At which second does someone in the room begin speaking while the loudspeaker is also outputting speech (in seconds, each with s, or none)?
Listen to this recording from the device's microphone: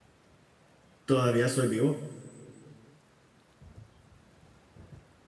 1.0 s